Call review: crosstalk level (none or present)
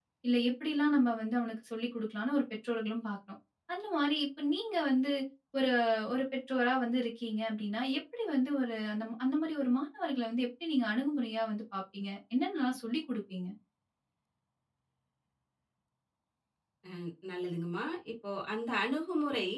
none